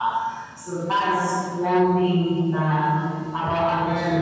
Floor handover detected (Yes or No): No